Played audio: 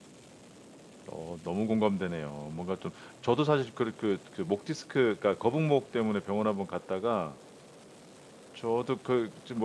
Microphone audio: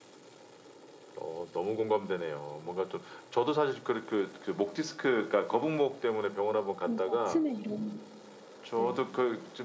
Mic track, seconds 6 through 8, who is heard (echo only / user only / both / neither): both